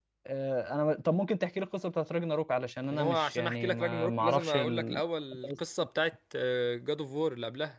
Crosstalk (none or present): present